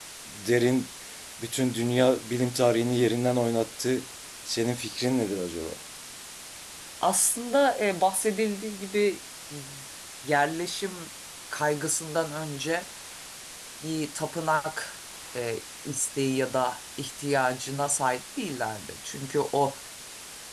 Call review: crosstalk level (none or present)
none